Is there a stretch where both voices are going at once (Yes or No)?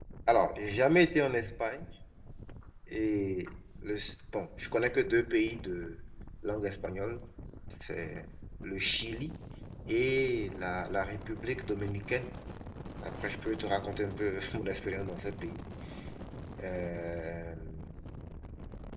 No